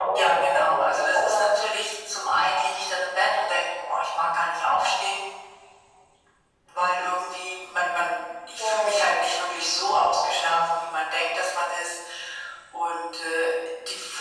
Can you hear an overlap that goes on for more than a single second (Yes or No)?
Yes